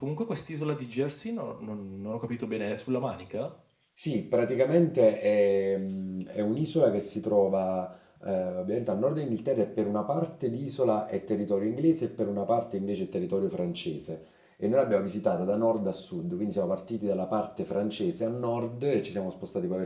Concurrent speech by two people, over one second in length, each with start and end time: none

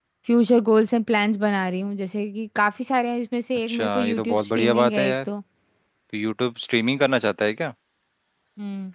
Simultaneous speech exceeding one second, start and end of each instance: 3.7-5.2

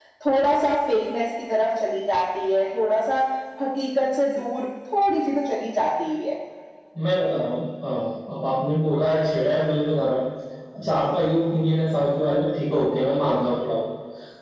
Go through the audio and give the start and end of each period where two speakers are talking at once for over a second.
none

